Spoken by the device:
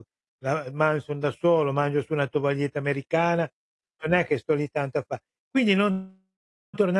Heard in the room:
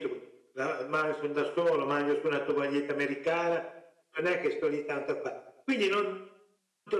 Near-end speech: none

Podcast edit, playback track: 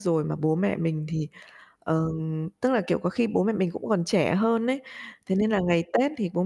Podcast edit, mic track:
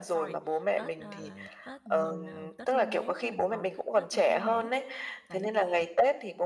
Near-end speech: present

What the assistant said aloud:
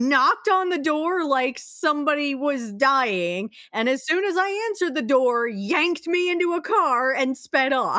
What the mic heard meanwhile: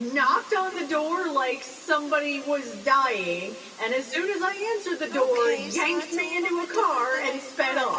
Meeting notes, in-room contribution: present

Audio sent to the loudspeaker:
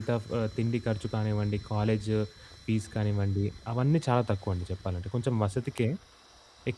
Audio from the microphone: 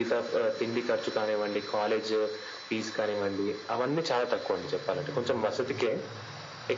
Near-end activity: present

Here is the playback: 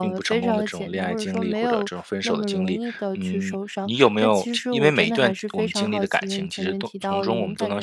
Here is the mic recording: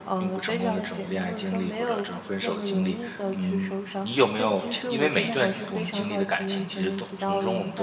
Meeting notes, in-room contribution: none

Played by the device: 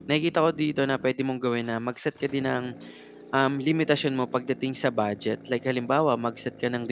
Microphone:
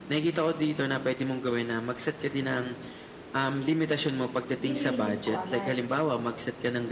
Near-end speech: present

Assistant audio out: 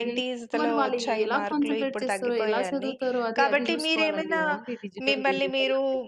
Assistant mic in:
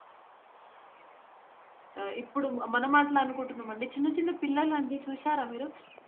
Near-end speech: present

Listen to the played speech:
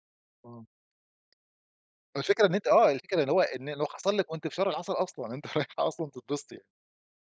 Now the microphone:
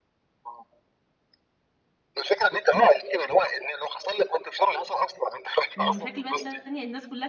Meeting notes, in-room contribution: present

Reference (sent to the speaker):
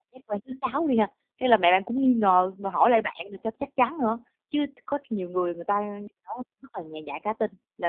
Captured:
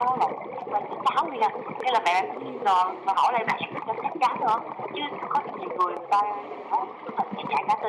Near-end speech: none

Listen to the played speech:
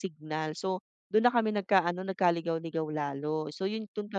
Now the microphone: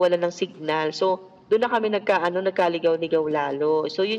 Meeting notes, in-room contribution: none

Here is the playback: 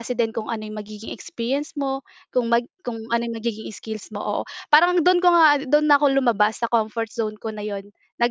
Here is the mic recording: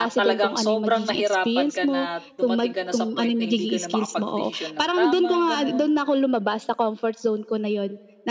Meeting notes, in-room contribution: present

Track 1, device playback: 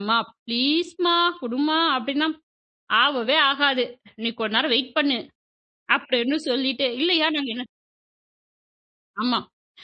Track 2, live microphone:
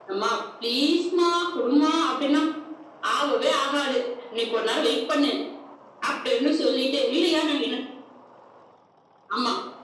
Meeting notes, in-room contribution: none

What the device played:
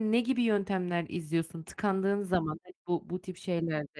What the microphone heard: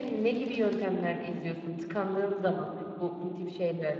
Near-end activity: none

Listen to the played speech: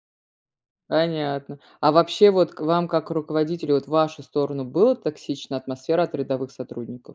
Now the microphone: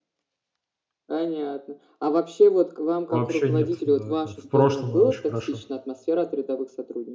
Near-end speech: present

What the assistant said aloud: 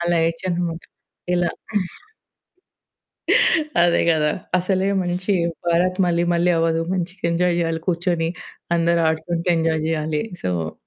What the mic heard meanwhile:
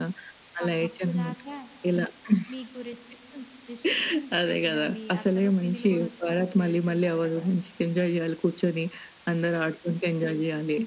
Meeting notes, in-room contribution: present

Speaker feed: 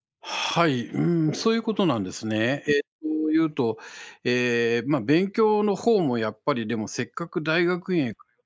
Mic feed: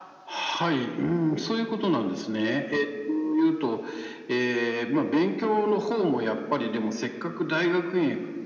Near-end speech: none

